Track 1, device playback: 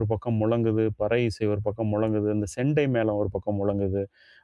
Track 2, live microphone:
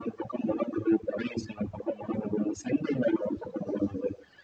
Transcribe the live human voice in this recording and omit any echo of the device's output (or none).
none